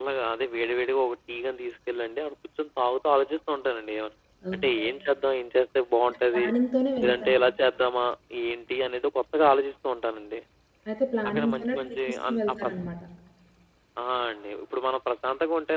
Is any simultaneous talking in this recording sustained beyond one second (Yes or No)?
Yes